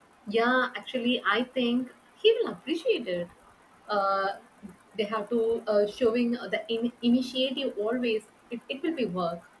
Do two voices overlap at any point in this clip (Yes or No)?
No